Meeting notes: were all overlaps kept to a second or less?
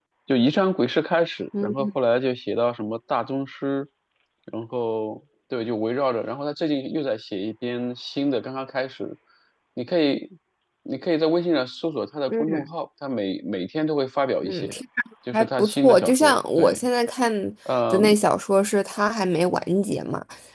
No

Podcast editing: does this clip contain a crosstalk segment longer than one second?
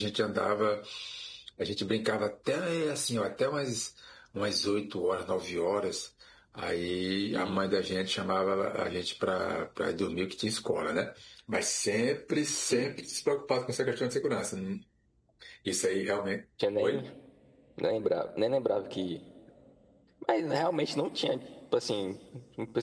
No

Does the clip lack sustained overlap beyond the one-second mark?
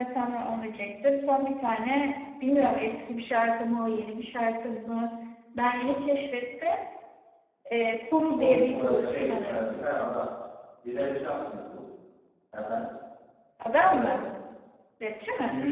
No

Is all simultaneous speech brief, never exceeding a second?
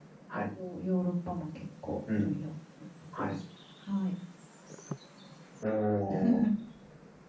Yes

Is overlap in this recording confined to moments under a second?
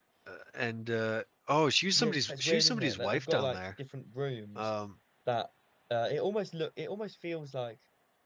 No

